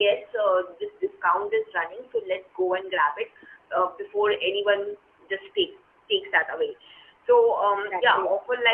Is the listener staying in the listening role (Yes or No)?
Yes